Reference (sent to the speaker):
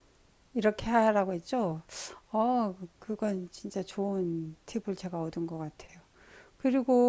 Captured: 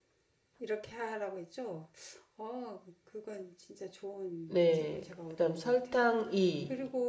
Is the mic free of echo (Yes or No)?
No